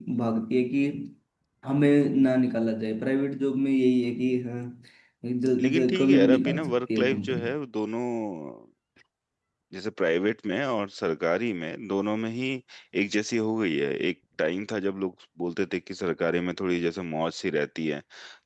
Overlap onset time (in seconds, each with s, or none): 5.6 s